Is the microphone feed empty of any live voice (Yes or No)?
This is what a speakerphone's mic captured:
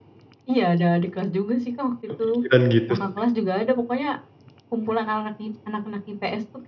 No